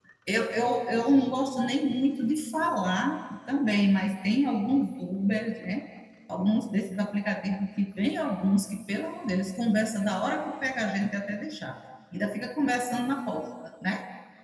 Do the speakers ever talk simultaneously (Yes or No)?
No